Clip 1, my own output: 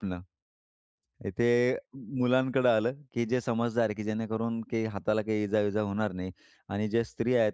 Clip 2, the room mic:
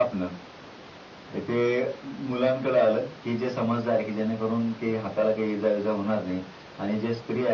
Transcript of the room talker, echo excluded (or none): none